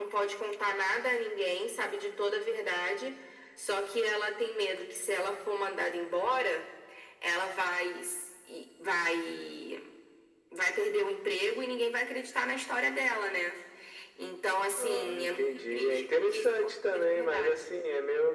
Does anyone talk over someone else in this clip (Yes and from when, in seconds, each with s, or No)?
Yes, from 14.8 s